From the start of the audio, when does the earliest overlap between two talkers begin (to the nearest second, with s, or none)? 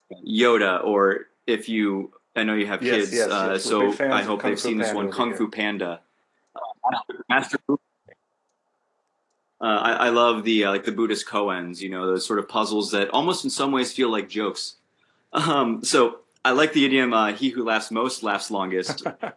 3 s